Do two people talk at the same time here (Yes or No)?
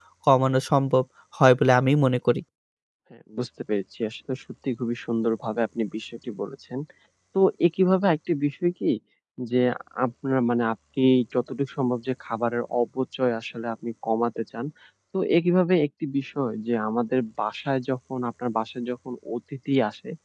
No